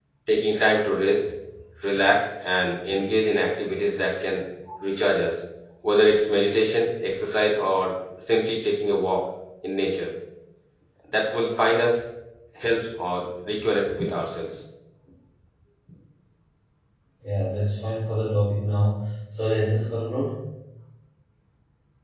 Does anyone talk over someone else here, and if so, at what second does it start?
none

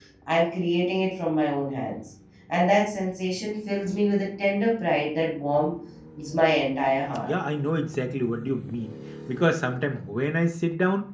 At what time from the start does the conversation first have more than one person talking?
none

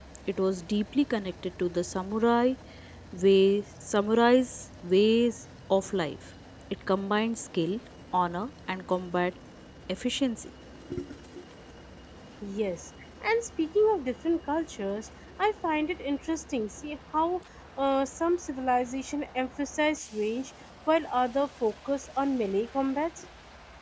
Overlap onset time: none

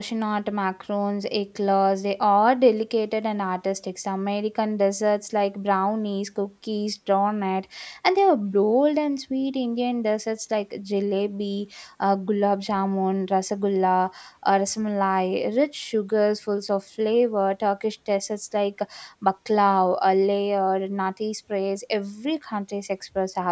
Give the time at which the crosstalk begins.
none

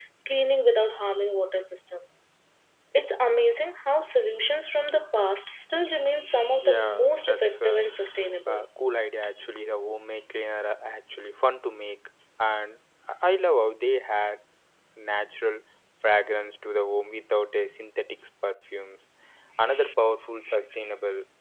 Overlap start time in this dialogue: 6.6 s

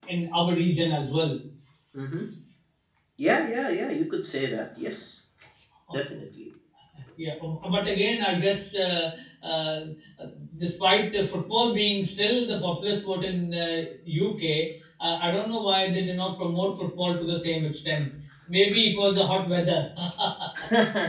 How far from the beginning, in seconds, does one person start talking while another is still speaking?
none

